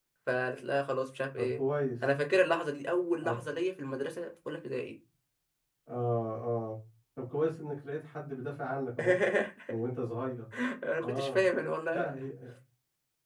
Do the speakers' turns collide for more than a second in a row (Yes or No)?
No